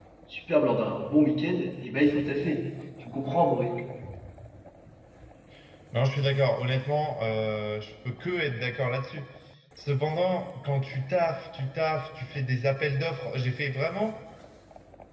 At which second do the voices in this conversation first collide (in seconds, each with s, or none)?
none